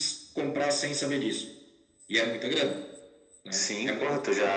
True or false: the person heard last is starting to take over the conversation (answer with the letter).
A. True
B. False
A